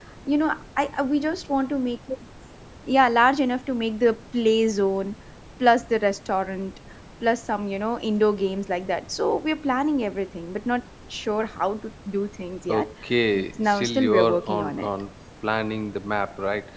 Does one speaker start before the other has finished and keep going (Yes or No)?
Yes